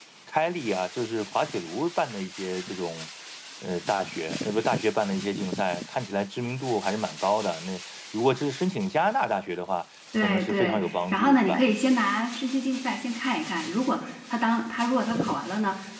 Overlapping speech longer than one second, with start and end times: 10.2-11.7

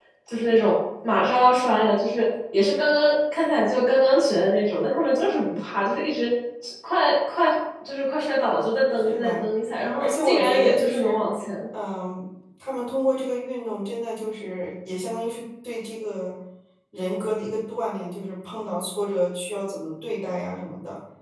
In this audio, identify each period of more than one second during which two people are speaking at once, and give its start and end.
10.0-11.2

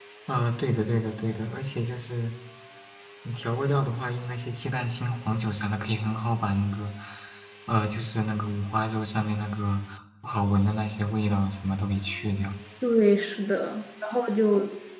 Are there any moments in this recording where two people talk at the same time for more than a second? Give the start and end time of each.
none

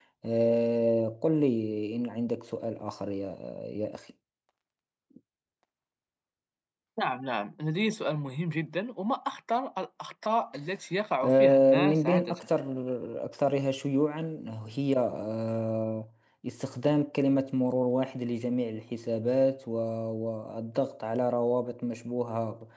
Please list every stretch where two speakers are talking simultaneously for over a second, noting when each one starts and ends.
11.2-12.5

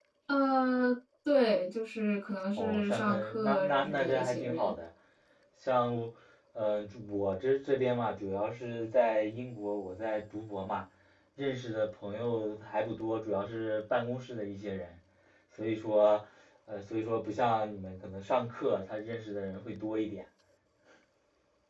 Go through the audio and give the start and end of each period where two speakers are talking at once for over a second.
2.6-4.8

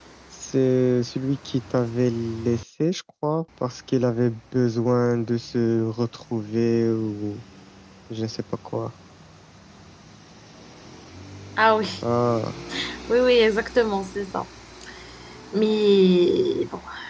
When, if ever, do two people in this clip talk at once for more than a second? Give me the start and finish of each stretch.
none

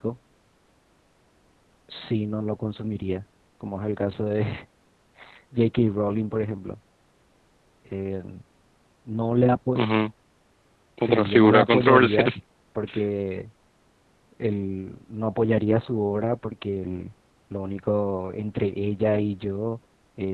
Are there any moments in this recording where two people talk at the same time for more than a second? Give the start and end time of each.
11.0-12.2

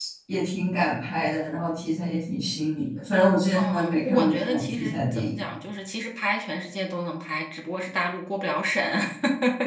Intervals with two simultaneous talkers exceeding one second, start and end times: 3.5-5.3

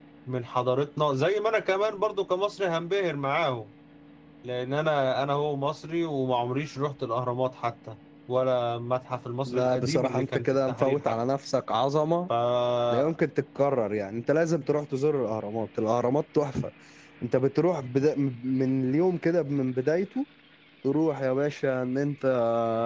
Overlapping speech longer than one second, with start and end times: 9.5-11.1

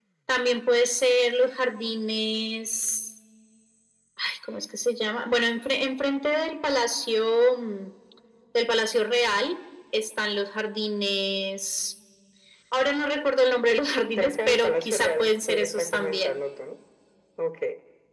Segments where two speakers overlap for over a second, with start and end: 14.2-16.4

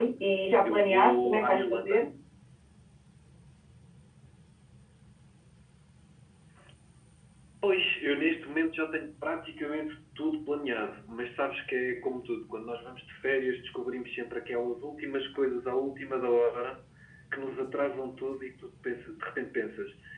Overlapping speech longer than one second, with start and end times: 0.6-2.0

